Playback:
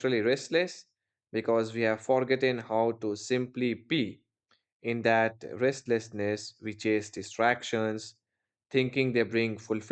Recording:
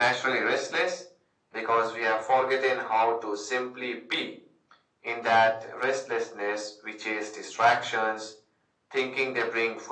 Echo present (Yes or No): Yes